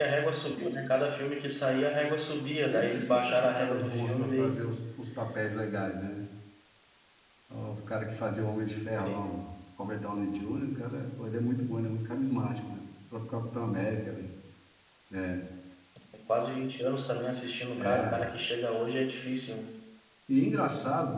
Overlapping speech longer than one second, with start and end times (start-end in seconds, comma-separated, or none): 2.7-4.6